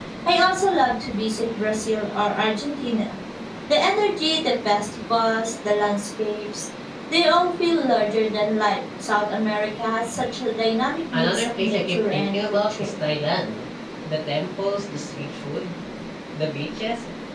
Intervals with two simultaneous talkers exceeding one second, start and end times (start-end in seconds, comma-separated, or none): 11.1-12.9